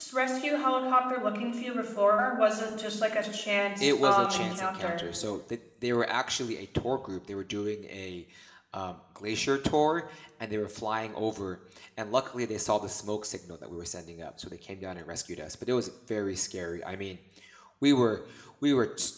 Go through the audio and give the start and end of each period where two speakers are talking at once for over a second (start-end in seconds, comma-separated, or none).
3.8-5.0